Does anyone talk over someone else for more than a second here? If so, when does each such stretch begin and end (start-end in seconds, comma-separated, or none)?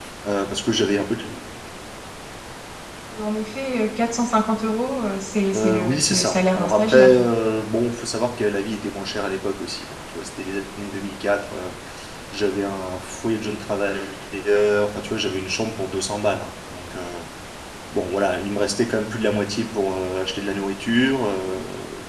5.5-7.2